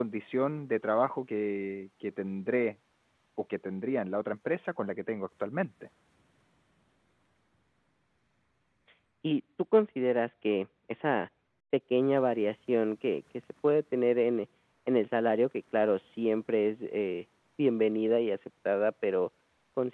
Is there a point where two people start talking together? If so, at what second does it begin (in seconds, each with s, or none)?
none